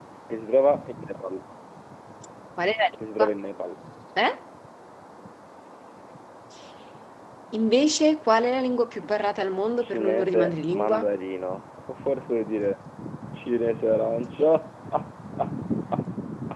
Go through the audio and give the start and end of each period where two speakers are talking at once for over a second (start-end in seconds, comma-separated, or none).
9.8-11.0